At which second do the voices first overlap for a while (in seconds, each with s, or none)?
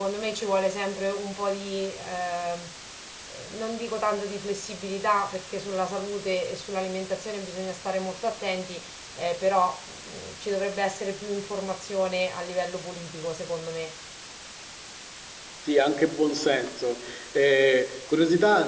none